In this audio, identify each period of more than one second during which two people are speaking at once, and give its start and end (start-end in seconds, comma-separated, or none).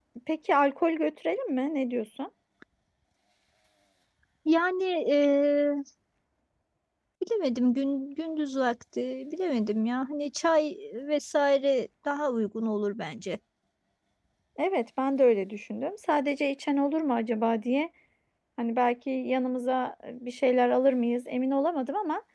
none